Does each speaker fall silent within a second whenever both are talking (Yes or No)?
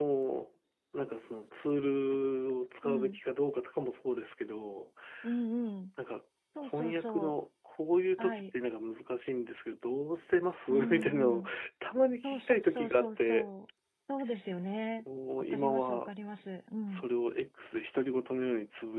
No